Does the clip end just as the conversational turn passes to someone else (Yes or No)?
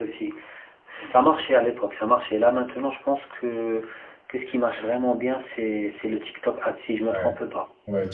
Yes